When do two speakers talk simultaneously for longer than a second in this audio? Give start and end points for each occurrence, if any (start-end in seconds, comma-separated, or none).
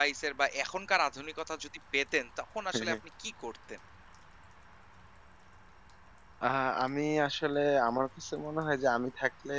none